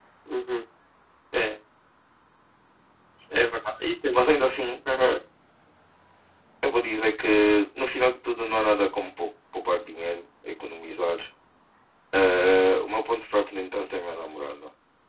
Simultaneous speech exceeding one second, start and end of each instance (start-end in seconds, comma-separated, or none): none